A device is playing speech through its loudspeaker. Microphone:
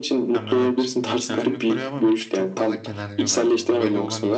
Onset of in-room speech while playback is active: 0.3 s

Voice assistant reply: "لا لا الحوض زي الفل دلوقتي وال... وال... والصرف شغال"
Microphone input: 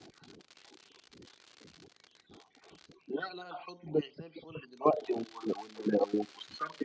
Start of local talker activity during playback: none

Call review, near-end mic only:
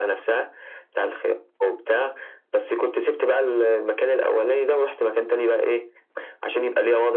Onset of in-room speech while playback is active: none

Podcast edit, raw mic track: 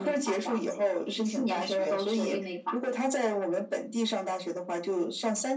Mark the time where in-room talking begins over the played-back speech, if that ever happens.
none

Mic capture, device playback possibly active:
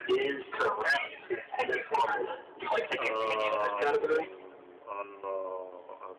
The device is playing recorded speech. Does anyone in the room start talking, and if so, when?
3.0 s

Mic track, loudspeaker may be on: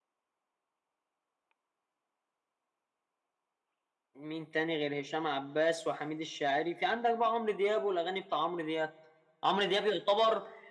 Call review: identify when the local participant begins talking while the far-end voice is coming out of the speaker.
none

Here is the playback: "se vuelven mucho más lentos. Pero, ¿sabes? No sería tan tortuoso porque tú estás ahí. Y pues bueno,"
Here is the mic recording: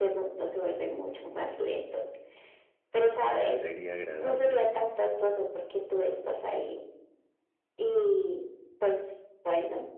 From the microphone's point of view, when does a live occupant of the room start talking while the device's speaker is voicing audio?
3.5 s

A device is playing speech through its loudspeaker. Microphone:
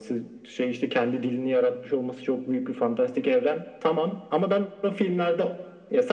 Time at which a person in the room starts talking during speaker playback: none

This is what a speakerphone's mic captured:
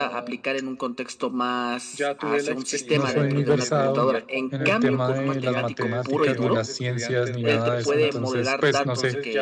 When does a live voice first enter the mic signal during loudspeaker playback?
2.9 s

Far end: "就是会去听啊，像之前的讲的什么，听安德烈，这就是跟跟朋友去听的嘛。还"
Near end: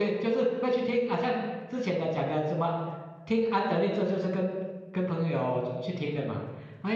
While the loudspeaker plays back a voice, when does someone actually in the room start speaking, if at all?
none

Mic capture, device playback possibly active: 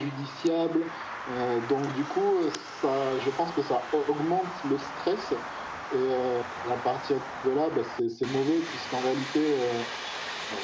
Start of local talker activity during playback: none

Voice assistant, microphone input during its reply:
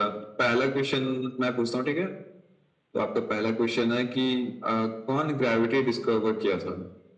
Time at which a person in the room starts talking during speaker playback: none

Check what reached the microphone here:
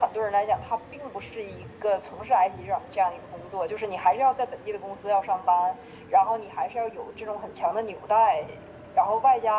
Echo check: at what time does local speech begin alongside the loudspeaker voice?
none

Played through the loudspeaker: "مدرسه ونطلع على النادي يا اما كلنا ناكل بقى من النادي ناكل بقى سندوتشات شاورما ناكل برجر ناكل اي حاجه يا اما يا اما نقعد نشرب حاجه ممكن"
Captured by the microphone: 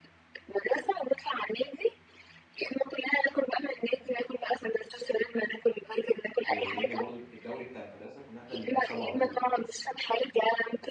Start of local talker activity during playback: 6.5 s

